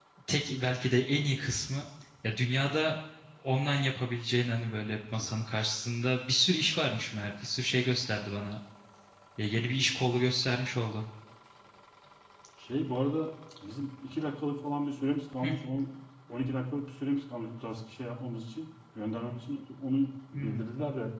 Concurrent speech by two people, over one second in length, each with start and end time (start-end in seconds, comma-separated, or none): none